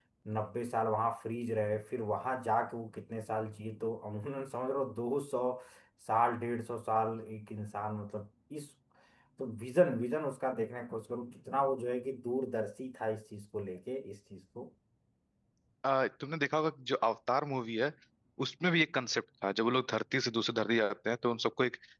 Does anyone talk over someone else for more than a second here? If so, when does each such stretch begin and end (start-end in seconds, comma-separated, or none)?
none